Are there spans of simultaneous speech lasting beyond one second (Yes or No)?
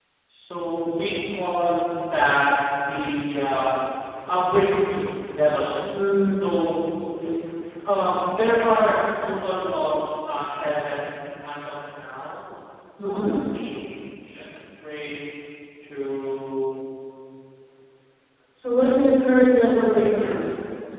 No